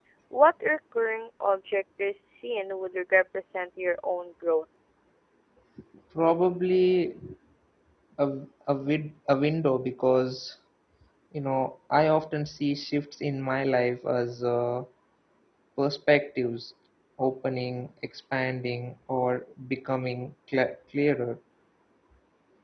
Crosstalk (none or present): none